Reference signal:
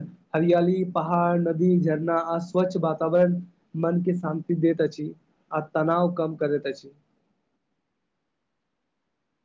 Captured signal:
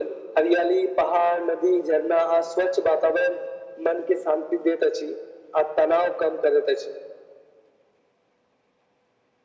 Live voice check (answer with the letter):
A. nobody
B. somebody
A